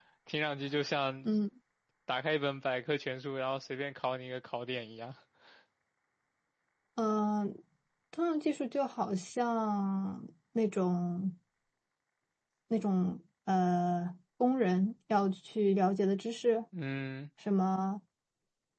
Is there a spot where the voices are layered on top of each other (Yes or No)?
No